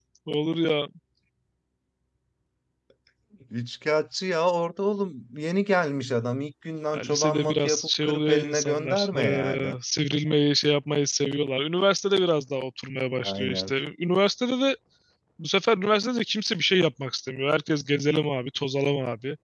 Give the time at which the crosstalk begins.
6.9 s

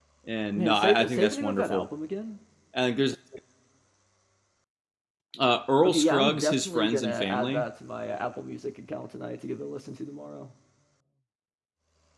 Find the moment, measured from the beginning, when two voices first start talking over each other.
0.6 s

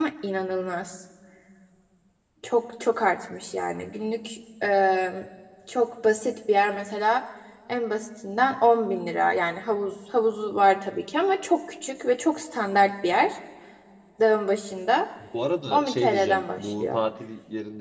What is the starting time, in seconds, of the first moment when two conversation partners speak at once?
15.7 s

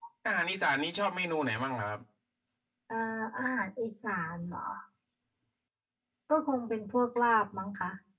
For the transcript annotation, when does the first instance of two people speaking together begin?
none

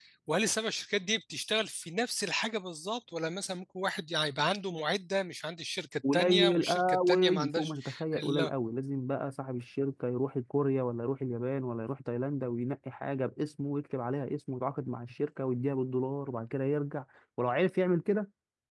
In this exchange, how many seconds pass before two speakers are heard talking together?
6.0 s

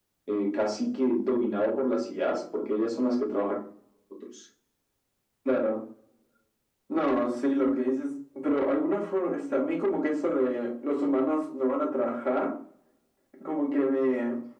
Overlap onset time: none

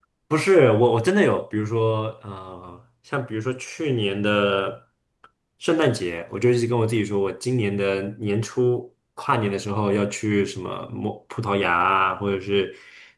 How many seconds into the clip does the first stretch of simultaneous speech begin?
none

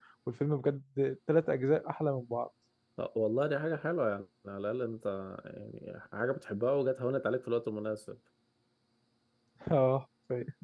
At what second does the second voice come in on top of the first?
none

